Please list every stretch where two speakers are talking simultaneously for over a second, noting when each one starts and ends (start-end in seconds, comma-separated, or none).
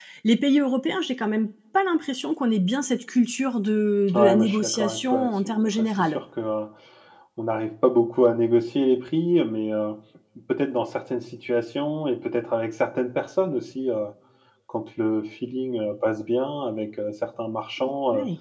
4.1-6.2